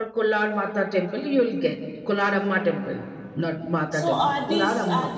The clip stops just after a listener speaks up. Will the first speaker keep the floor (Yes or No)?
No